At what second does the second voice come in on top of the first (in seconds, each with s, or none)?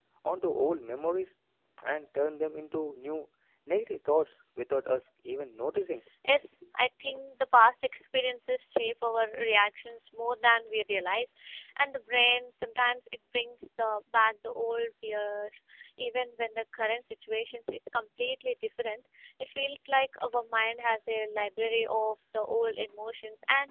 none